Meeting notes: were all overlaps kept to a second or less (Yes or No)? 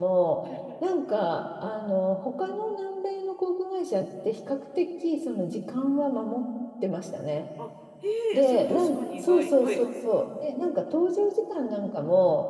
No